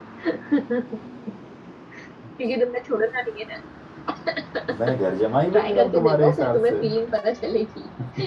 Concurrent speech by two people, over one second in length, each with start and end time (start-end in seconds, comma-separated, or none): 5.5-6.7